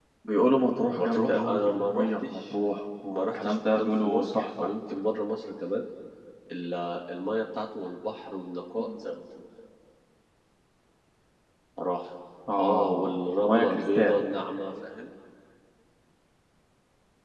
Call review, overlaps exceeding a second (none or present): present